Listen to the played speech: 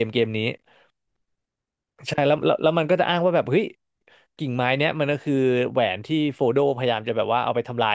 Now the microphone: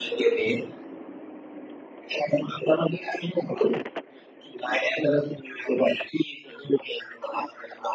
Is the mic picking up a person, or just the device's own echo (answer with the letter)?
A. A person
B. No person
B